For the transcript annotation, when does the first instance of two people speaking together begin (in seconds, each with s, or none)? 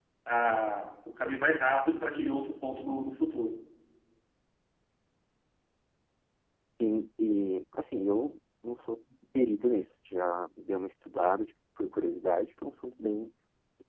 none